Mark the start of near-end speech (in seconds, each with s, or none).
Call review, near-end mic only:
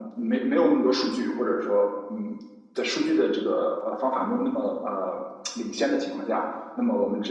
none